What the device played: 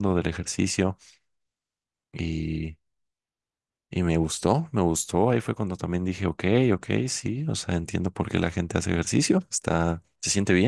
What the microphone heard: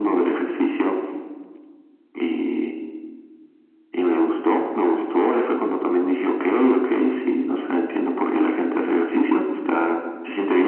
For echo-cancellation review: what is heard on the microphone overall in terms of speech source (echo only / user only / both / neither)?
echo only